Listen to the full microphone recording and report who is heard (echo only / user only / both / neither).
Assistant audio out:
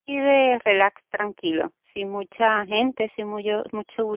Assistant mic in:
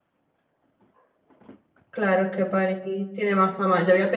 user only